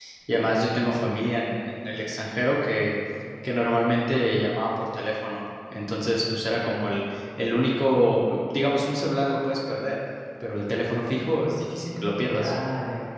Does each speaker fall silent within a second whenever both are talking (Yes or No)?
No